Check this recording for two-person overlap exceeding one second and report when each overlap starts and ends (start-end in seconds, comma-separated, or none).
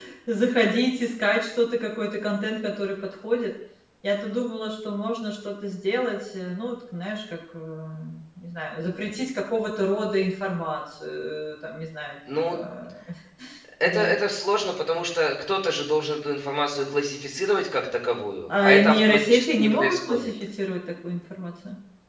18.6-20.3